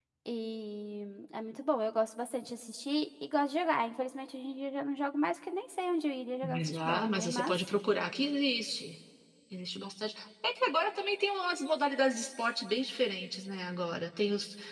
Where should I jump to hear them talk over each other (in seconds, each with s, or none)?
6.4 s